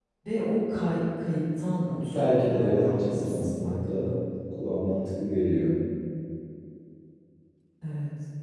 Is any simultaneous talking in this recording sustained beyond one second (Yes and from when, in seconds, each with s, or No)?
Yes, from 1.9 s